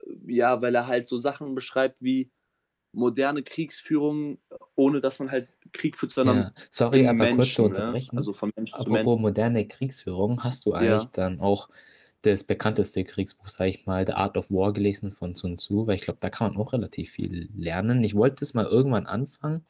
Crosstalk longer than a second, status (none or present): present